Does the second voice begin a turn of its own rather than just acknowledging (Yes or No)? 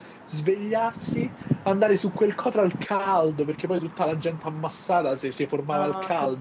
Yes